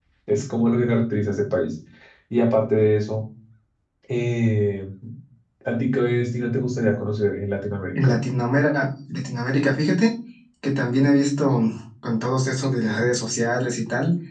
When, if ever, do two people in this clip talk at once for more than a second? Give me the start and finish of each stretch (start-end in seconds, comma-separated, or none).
none